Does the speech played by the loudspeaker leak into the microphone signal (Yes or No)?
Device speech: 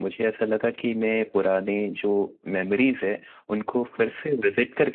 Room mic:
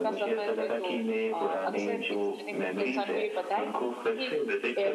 Yes